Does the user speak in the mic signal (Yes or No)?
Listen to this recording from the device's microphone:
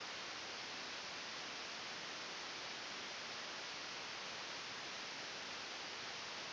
No